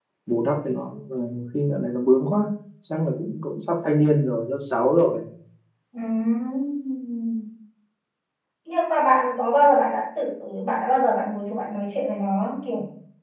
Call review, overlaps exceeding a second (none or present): none